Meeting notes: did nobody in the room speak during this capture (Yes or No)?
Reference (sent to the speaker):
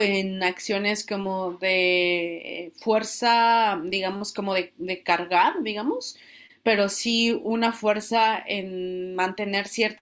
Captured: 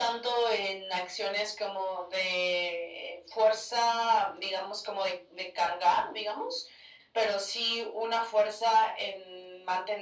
Yes